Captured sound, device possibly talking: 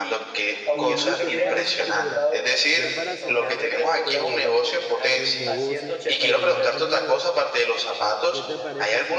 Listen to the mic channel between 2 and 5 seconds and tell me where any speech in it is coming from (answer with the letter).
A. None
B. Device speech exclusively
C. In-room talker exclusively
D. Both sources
D